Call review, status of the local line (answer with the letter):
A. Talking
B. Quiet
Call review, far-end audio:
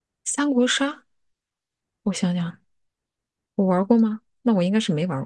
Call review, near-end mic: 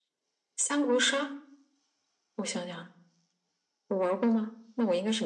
B